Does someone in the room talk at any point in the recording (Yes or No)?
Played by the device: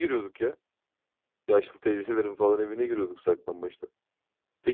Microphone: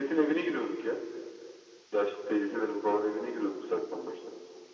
No